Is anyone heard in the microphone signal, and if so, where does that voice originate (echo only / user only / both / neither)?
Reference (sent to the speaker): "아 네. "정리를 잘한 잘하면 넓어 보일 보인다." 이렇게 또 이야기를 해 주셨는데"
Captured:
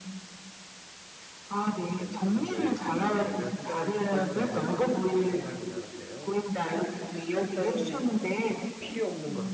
both